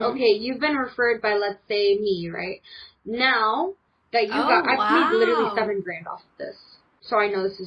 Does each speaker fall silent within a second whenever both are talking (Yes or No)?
No